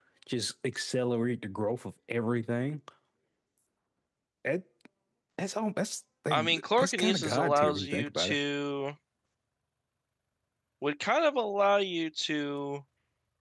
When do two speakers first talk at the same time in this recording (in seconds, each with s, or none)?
6.3 s